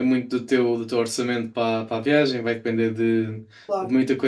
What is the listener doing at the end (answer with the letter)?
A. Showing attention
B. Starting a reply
A